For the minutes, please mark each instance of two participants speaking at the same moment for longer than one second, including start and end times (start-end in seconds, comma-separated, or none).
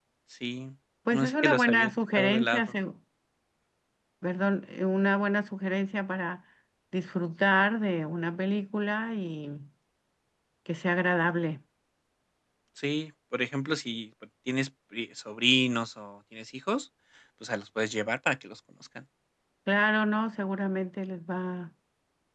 1.1-2.6